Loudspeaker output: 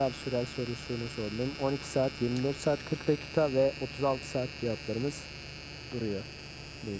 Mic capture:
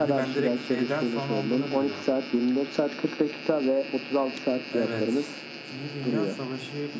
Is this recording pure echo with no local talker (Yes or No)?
No